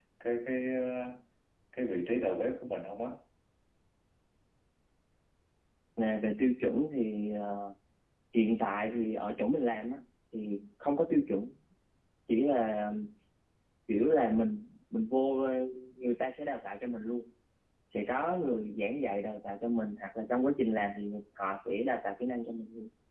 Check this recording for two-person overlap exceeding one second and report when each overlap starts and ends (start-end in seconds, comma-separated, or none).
none